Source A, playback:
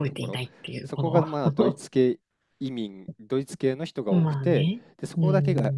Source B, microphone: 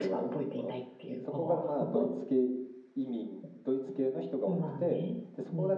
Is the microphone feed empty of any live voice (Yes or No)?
Yes